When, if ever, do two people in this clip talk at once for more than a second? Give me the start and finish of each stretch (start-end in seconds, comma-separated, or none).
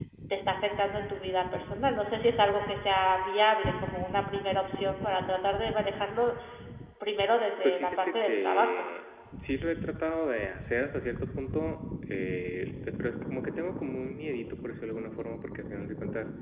7.6-8.9